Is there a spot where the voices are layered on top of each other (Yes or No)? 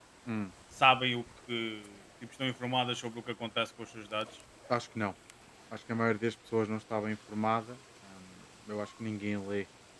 No